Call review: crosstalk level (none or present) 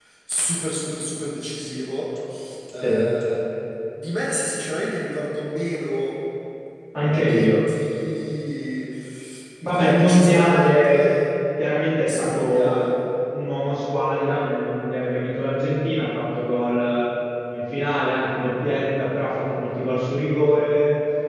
present